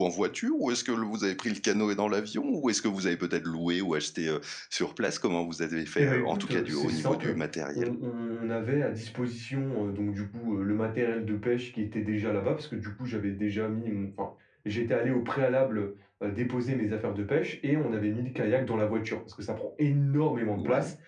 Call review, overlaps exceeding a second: present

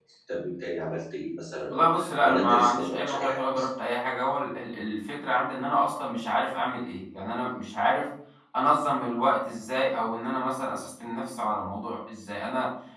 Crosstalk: present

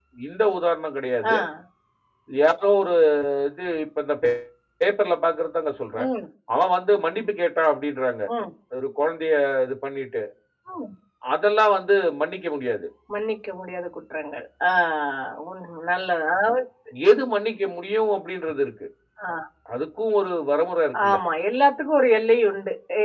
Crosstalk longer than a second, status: none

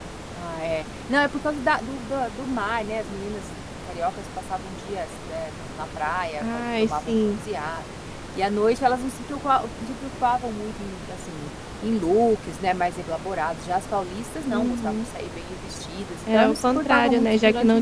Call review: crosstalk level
present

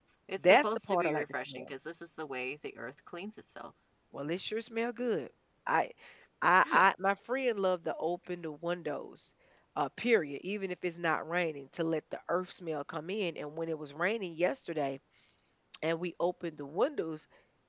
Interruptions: present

